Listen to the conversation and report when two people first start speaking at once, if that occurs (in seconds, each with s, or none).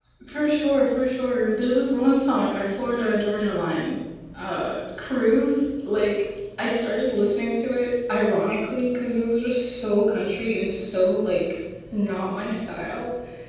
none